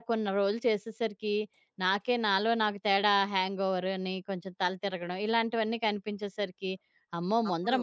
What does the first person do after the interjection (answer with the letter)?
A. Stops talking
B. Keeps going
B